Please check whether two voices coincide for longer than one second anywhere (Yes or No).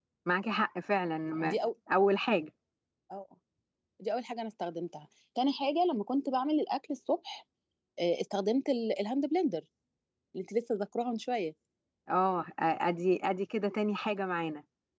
No